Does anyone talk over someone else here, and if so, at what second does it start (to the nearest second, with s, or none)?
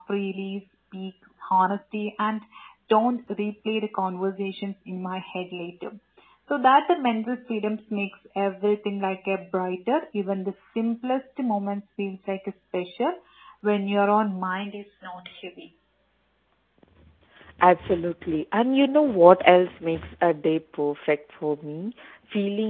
none